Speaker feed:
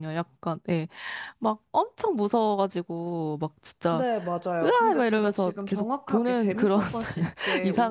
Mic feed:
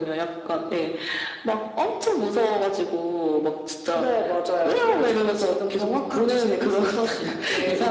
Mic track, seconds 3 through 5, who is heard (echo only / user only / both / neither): echo only